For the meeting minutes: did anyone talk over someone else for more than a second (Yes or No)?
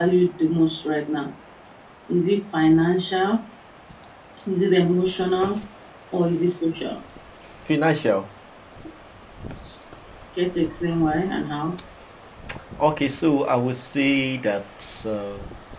No